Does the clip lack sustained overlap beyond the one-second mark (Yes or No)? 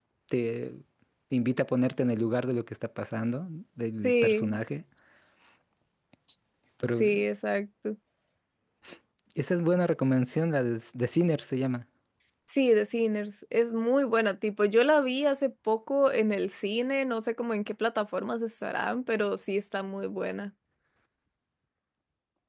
Yes